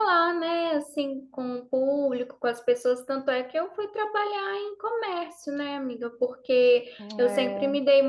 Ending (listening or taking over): listening